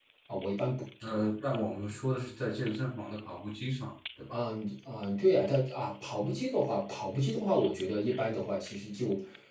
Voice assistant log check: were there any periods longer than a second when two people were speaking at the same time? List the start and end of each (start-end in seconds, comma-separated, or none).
none